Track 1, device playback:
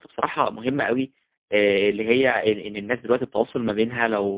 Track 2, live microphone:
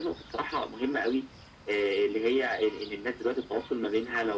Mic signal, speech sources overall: echo only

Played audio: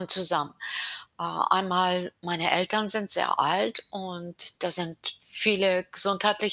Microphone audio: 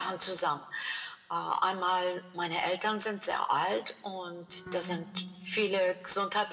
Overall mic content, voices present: both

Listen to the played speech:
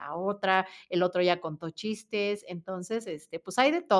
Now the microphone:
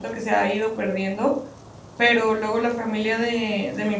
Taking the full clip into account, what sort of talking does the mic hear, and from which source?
user only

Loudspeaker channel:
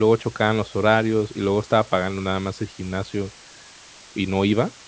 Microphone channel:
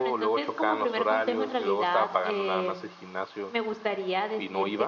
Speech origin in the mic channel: both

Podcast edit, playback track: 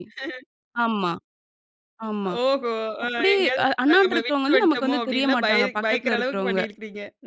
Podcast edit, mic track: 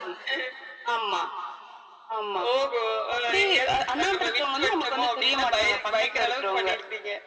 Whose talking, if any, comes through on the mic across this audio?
echo only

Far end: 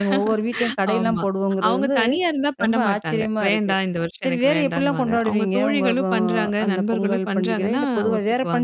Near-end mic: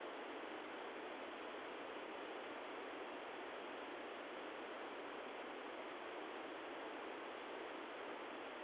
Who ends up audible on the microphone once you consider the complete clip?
neither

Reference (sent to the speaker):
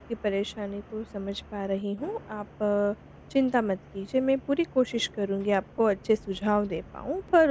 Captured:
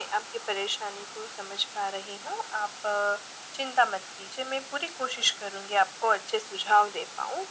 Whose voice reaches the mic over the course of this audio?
echo only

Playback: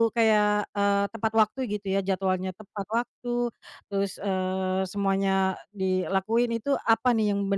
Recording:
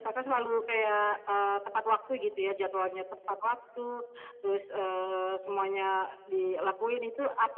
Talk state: echo only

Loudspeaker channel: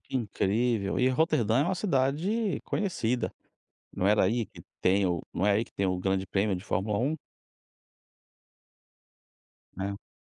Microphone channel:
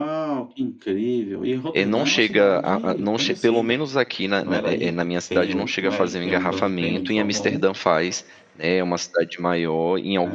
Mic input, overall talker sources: both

